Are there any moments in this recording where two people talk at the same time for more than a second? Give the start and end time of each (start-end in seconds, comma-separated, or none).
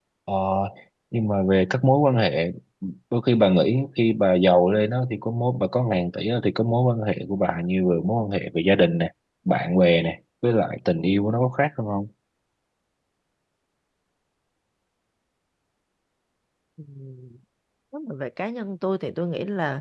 none